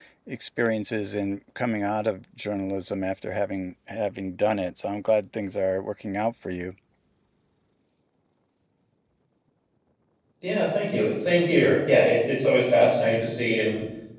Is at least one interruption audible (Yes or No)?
No